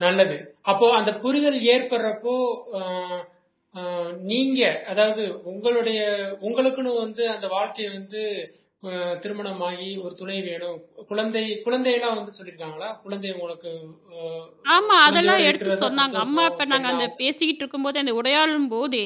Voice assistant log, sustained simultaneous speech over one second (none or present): present